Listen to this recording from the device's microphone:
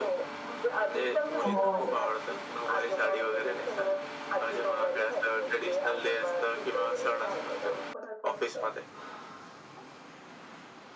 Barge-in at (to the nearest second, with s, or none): 1 s